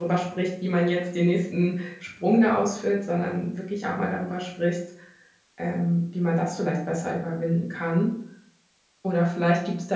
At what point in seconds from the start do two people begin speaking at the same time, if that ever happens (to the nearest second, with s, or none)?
none